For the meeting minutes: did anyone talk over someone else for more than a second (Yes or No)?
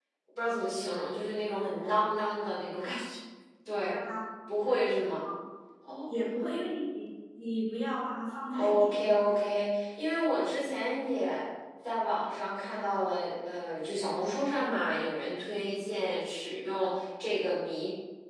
No